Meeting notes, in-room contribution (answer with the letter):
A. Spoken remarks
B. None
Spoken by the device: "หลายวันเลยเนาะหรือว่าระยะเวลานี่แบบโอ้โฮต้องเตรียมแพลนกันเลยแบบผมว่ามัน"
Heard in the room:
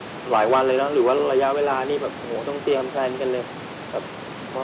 B